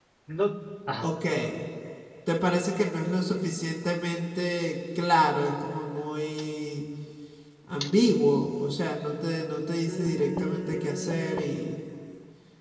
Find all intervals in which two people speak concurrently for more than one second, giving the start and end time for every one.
9.9-11.4

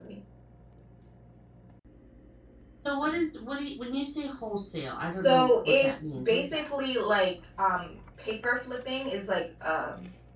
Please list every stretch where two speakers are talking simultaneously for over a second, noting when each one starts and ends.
5.2-6.6

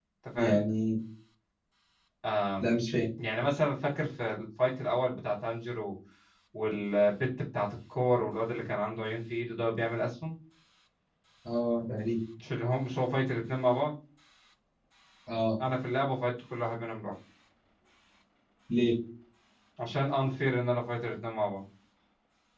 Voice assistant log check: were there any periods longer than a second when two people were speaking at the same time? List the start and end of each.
none

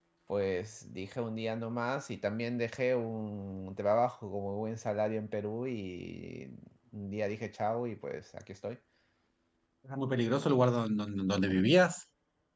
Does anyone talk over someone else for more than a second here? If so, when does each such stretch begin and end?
none

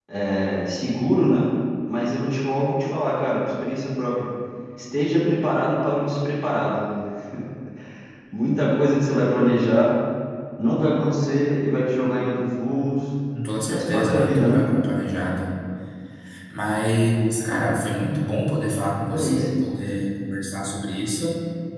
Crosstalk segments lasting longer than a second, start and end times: 13.4-14.6

